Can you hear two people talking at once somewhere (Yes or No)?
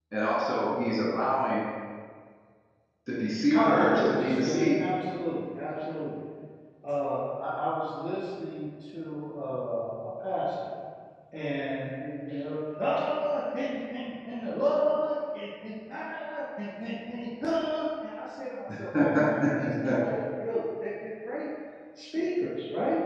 Yes